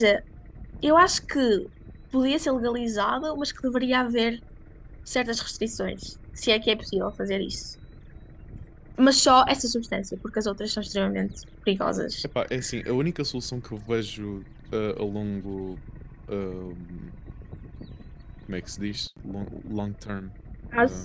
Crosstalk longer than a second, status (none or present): none